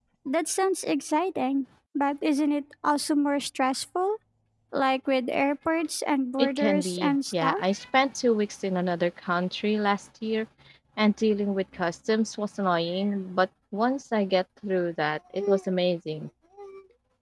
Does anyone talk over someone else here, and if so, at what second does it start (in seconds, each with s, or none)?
6.4 s